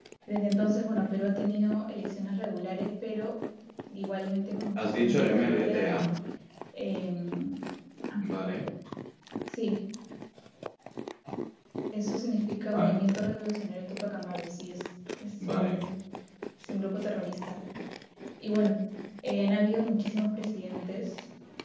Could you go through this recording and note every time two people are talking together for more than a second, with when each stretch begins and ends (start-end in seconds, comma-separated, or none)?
4.8-6.0